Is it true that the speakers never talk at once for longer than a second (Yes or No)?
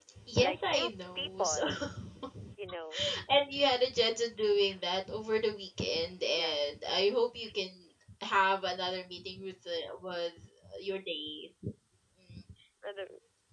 No